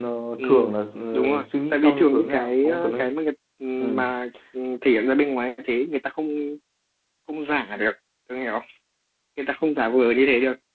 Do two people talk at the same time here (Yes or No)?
Yes